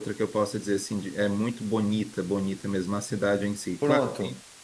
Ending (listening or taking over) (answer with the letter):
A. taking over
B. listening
B